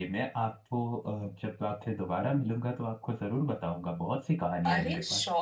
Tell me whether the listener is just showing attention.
No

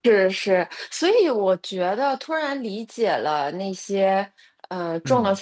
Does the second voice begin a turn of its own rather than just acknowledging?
No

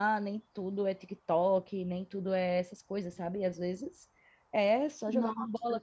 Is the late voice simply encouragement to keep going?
Yes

